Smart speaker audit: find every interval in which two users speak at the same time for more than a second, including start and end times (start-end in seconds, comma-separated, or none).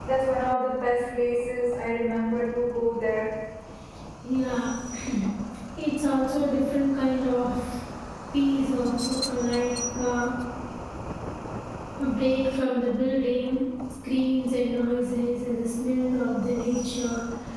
none